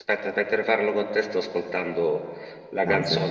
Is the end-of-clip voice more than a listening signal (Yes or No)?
No